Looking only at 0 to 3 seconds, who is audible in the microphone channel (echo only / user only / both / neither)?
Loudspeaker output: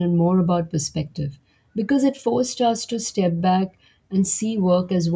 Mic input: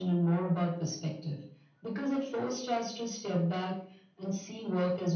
echo only